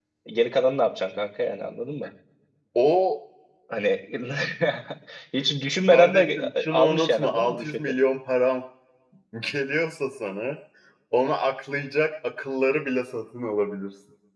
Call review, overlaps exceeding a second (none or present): present